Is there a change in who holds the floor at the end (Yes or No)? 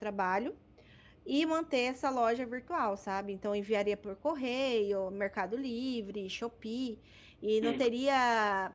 No